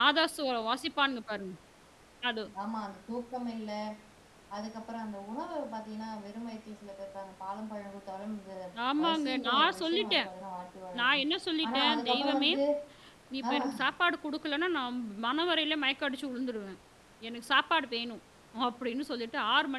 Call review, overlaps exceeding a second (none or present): present